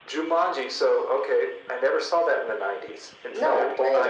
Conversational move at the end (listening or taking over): listening